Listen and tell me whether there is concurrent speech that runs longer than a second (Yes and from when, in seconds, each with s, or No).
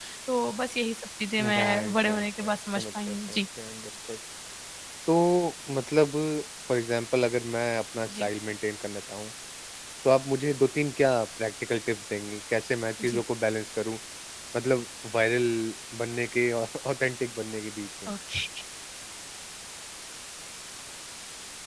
Yes, from 1.4 s